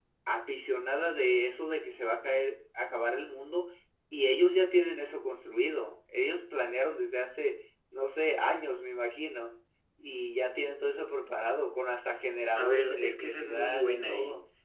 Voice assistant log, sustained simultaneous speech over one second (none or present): present